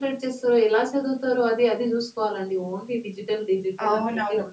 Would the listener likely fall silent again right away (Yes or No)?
No